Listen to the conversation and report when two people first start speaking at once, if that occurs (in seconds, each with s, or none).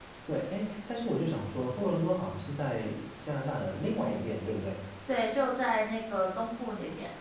none